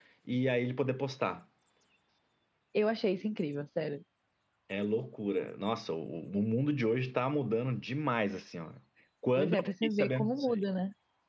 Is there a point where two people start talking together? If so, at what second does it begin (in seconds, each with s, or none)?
9.3 s